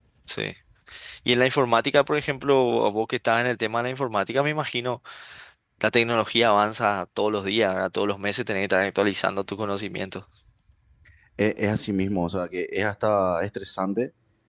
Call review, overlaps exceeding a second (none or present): none